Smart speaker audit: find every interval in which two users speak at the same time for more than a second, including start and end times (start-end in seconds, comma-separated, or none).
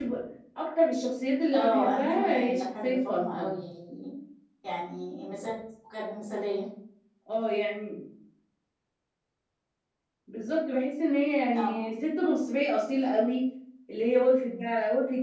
1.5-3.5